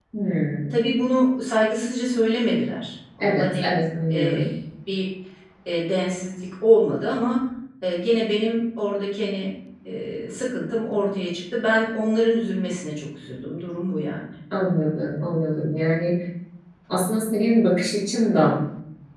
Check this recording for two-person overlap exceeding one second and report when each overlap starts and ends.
none

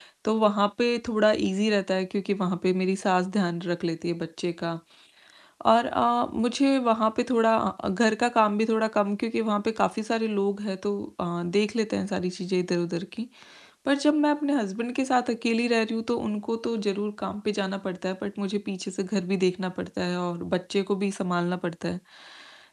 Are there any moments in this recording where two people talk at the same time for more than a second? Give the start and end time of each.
none

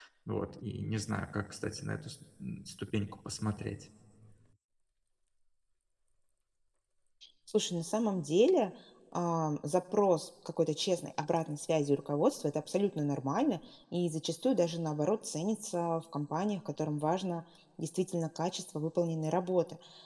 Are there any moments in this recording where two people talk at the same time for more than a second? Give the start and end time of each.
none

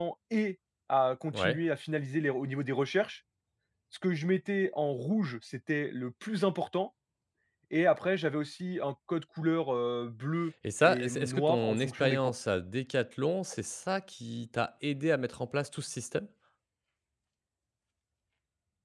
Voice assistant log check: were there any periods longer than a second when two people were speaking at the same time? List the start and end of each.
10.8-12.3

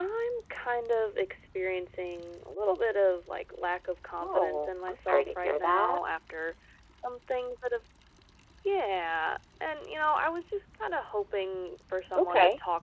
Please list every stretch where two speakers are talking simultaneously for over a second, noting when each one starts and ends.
4.2-6.0

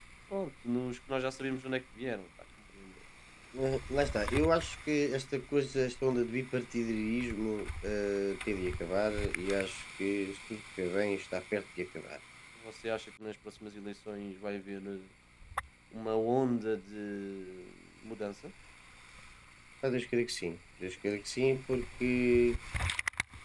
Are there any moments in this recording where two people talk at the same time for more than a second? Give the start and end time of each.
none

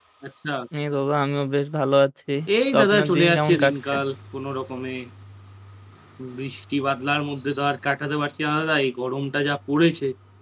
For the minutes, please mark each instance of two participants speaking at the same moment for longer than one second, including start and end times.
2.7-3.9

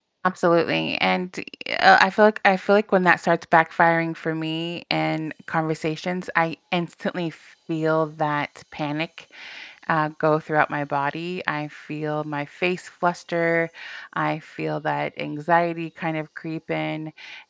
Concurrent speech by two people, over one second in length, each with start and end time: none

